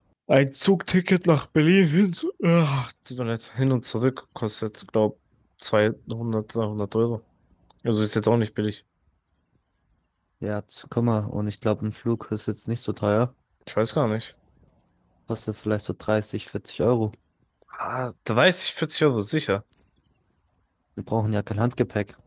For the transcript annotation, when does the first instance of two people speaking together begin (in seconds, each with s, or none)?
none